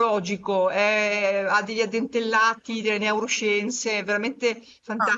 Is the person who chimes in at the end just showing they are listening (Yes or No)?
No